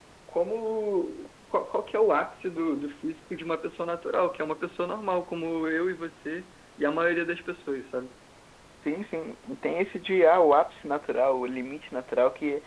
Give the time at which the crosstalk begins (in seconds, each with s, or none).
none